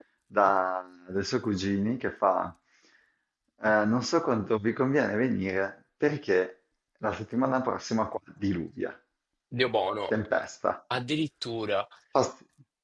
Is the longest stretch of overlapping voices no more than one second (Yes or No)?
Yes